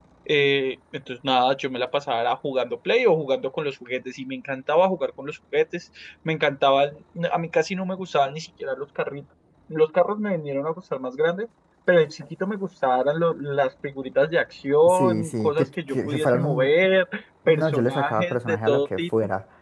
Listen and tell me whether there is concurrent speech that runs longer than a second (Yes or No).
Yes